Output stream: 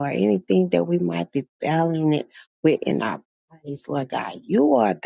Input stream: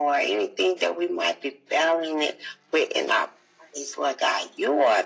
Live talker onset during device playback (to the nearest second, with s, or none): none